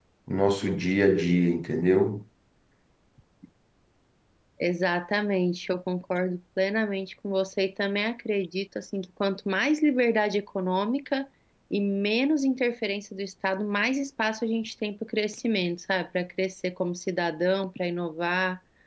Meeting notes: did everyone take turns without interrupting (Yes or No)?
Yes